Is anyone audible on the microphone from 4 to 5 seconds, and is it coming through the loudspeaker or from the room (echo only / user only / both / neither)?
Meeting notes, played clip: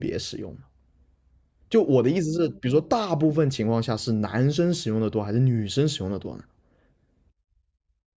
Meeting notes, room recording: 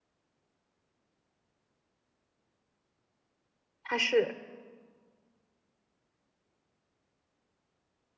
user only